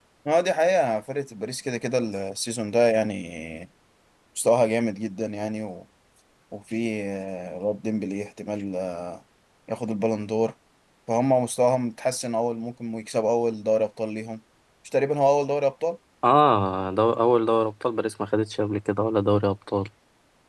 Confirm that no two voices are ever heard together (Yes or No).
Yes